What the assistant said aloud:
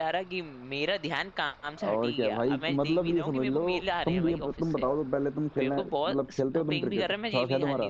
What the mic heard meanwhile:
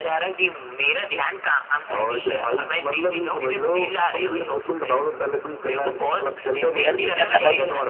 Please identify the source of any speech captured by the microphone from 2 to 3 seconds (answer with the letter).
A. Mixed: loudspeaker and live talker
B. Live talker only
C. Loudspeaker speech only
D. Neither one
C